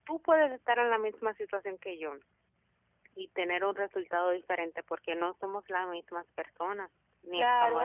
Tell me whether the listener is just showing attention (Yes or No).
No